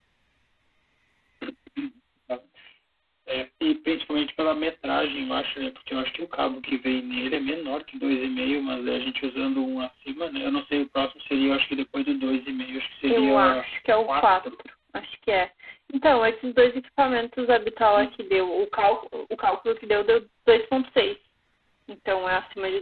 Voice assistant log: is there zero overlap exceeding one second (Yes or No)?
Yes